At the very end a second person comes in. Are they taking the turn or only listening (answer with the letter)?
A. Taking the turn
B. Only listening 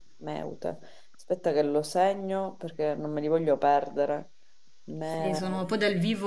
A